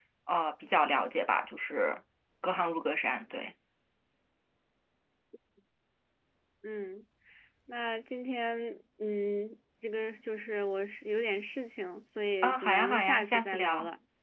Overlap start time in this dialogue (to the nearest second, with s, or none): 12 s